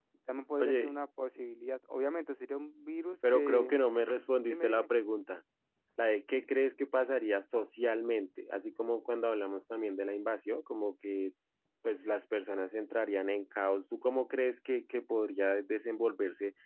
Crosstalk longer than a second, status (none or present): none